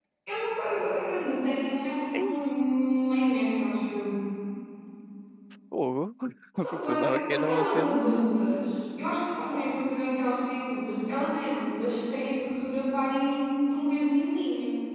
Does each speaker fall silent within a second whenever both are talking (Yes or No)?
No